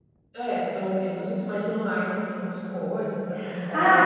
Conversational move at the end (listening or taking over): taking over